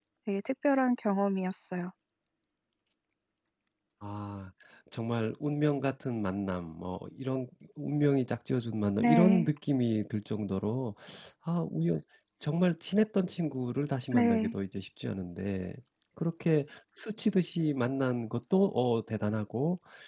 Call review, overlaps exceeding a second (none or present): none